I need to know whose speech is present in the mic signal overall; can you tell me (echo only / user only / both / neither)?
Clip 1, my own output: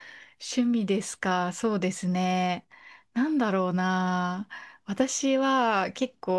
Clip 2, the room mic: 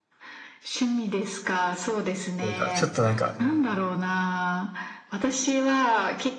both